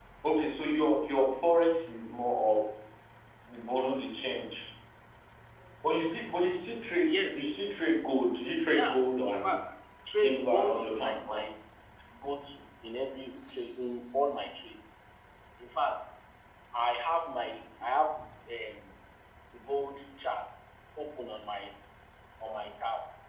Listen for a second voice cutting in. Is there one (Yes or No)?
Yes